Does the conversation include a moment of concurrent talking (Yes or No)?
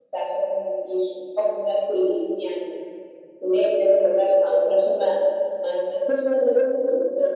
No